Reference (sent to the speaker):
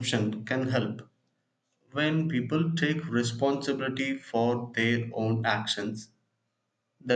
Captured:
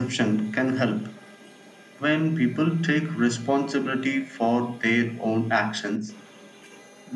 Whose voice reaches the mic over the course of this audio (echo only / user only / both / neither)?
echo only